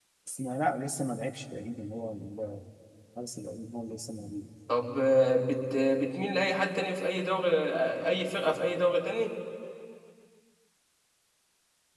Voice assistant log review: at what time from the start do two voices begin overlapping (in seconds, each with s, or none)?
none